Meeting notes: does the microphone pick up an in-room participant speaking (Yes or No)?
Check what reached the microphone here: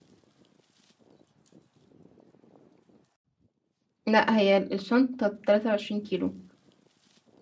Yes